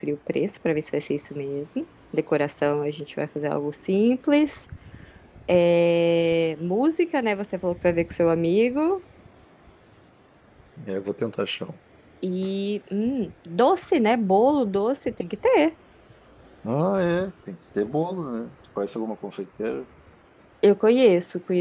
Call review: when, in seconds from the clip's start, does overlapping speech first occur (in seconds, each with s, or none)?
none